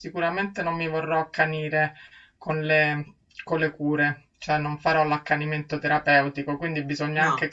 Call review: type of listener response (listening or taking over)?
listening